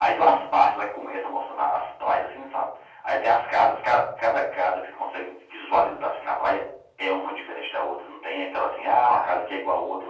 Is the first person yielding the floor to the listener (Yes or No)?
No